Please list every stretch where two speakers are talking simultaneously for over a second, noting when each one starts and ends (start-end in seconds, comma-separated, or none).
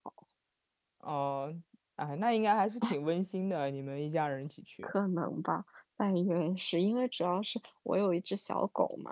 none